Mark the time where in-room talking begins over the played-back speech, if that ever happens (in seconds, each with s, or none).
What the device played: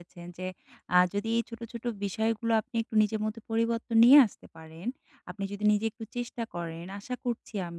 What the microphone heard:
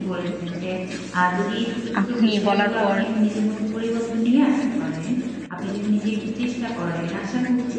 2.0 s